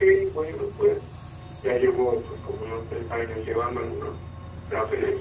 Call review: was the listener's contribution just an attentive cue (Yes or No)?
Yes